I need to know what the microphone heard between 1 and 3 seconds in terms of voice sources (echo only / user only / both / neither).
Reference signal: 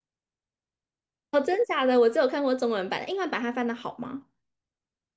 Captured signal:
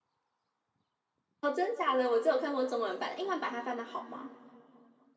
echo only